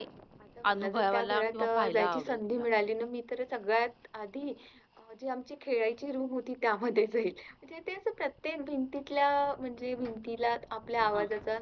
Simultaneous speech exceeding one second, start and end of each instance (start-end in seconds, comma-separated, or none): 0.7-2.7